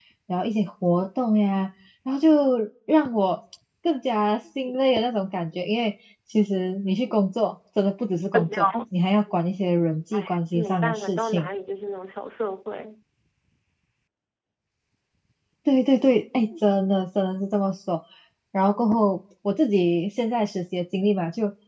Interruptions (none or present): present